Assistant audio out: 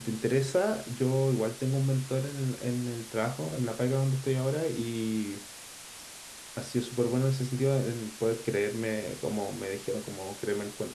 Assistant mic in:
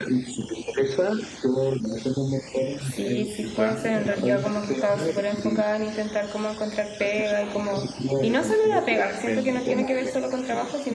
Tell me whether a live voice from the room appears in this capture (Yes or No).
Yes